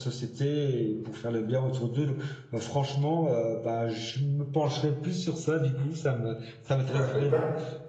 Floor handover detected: Yes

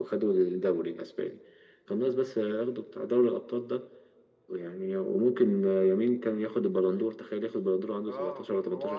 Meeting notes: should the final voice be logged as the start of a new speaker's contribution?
Yes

